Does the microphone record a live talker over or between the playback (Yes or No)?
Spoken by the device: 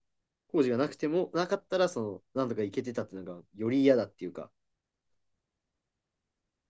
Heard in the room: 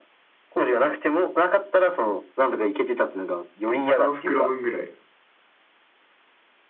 Yes